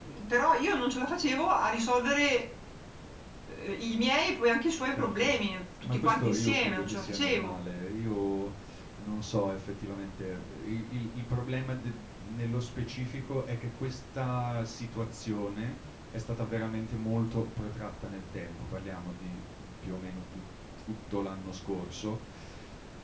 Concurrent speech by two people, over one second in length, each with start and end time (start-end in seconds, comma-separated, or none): 5.8-7.5